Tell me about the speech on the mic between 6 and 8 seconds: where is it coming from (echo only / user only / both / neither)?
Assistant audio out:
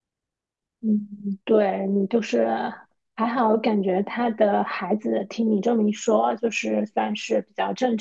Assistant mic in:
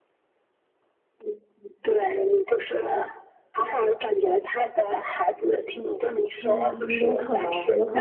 both